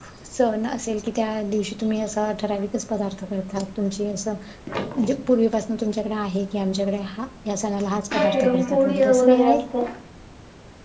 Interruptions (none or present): present